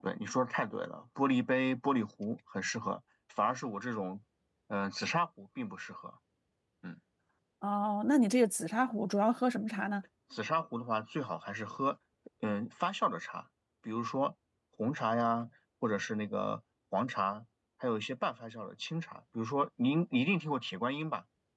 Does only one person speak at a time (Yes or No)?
Yes